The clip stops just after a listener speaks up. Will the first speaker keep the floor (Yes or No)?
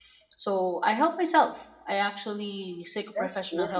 Yes